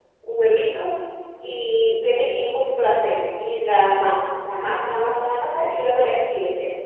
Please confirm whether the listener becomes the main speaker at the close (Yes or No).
No